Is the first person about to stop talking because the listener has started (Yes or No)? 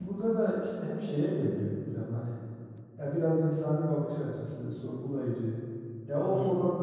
No